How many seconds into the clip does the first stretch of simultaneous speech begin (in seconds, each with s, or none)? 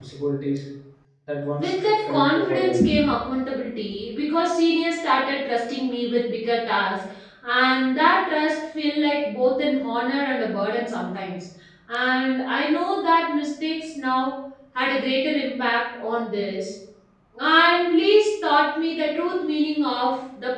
1.6 s